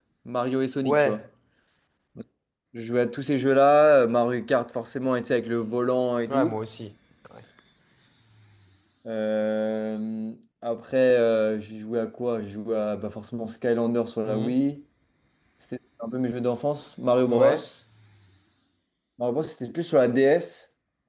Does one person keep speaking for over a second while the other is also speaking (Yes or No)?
No